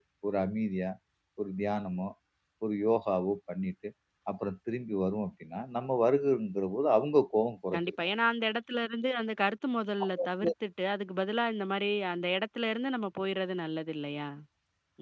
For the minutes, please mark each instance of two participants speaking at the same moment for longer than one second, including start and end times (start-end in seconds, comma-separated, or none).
none